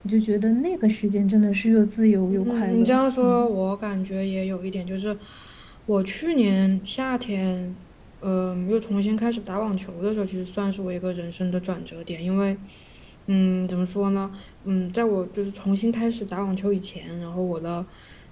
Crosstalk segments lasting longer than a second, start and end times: 2.3-3.5

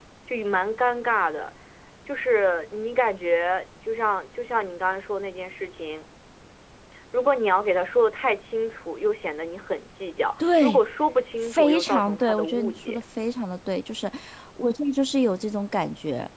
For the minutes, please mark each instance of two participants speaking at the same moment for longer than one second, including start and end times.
11.4-13.0

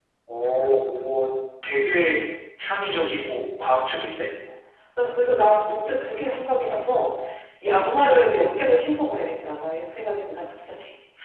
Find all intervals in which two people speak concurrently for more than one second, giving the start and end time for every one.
none

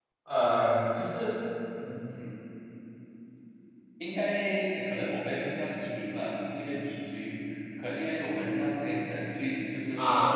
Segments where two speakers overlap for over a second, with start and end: none

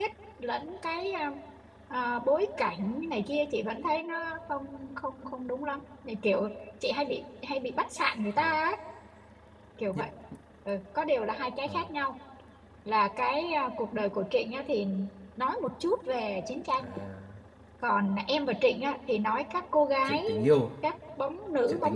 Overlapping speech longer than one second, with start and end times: none

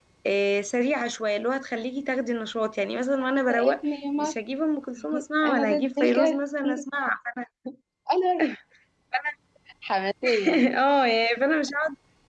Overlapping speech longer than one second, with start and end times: 5.4-6.8

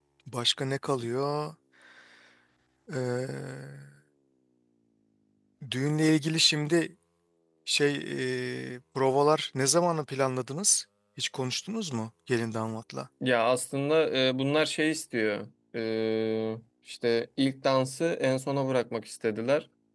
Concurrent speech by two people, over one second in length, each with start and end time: none

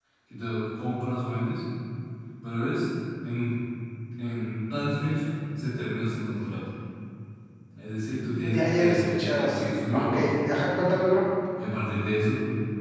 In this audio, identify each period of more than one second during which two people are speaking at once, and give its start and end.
8.5-10.4

